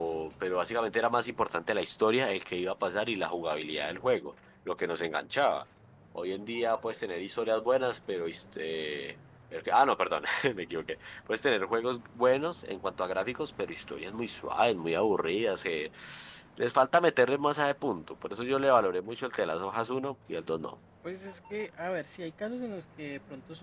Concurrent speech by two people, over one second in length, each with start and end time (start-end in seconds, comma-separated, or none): none